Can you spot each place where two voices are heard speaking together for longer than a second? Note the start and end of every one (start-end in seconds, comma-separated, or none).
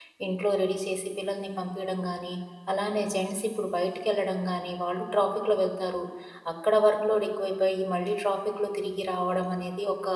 none